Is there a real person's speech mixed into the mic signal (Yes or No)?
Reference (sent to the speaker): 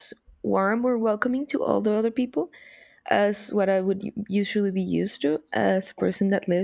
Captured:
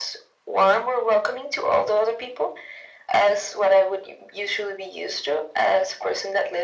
No